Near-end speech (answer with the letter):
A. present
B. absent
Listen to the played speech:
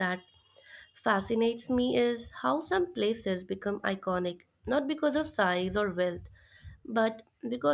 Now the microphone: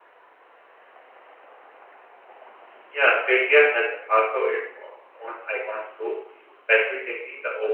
A